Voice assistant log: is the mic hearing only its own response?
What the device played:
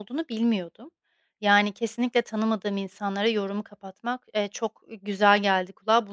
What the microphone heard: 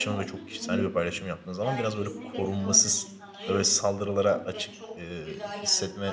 No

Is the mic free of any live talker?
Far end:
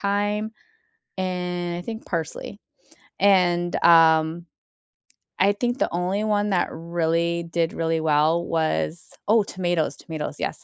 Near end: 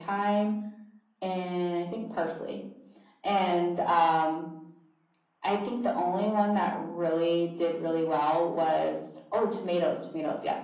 Yes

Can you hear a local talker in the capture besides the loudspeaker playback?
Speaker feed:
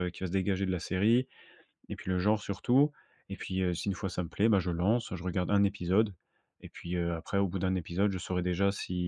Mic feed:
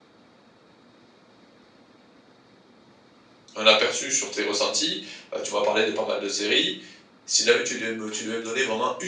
Yes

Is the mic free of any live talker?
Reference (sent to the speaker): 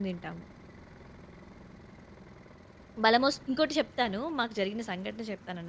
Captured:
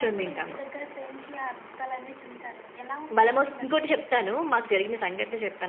No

